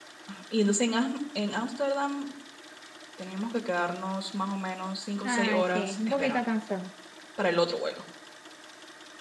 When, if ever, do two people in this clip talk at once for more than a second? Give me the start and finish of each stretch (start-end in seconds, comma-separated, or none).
5.2-6.5